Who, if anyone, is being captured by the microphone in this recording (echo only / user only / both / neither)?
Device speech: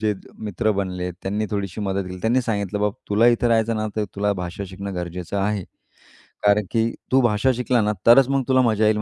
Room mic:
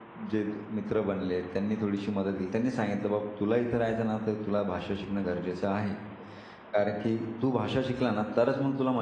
echo only